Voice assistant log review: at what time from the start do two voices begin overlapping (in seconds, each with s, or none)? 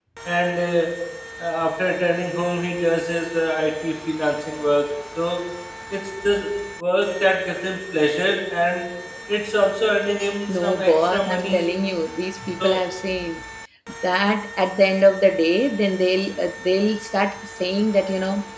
10.5 s